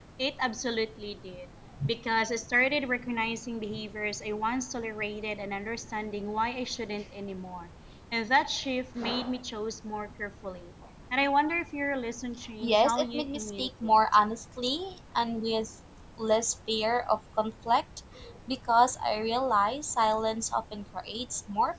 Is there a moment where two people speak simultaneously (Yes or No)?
Yes